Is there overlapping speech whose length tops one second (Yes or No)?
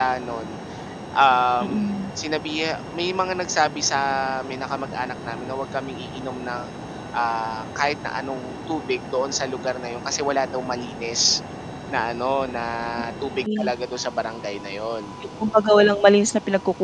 No